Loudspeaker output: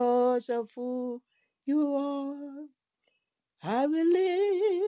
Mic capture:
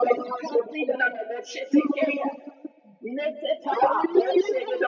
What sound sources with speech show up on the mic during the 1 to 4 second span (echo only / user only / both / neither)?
both